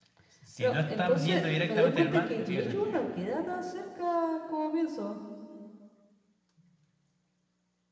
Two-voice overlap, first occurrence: 1 s

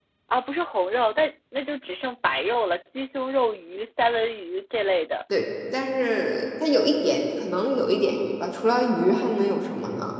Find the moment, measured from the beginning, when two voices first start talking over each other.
none

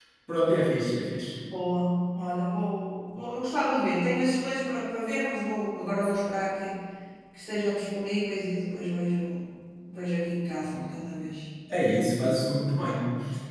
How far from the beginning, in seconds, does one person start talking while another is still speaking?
none

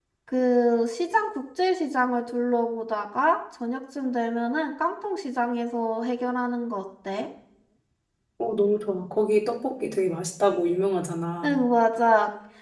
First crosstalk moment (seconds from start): none

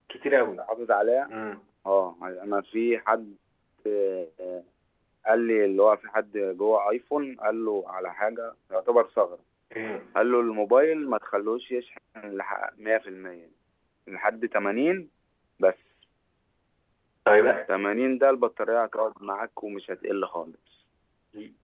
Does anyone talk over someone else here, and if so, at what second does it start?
none

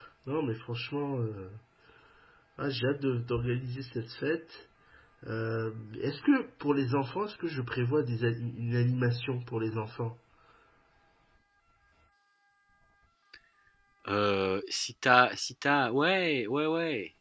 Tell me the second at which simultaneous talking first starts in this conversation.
none

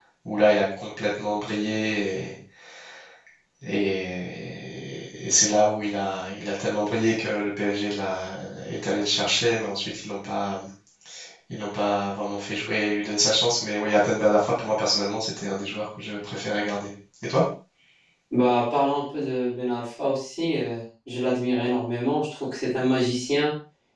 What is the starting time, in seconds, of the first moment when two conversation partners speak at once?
none

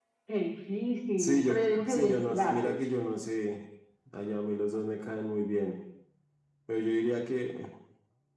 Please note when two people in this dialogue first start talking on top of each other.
1 s

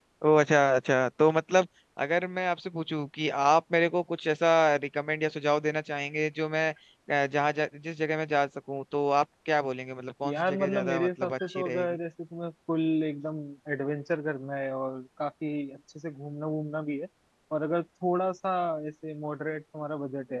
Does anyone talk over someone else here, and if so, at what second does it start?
10 s

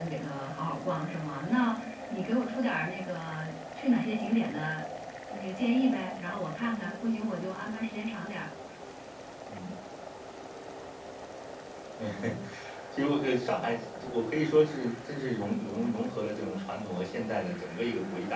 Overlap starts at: none

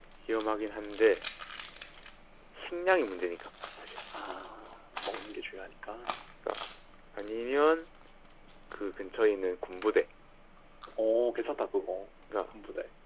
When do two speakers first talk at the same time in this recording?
none

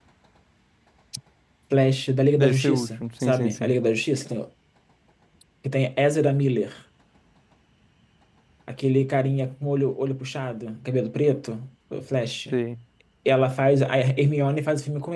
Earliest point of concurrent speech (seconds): 2 s

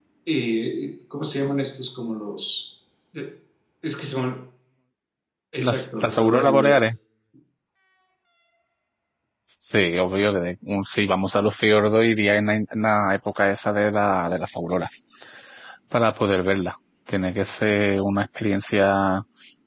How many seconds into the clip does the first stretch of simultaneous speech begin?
6 s

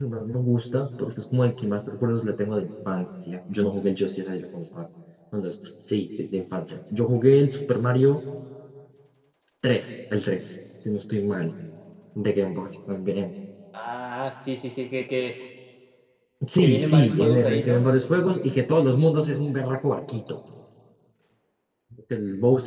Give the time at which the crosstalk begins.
17 s

